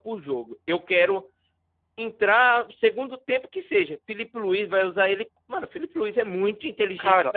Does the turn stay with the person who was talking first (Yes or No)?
No